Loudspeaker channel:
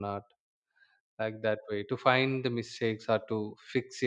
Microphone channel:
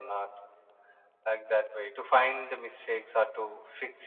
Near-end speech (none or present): none